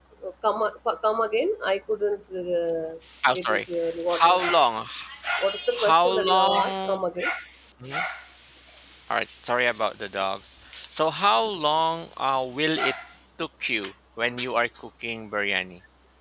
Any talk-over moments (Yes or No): Yes